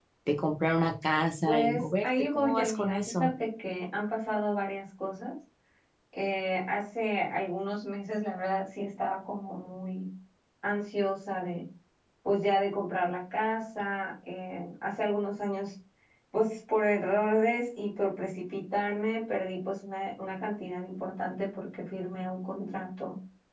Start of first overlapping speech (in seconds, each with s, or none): 1.5 s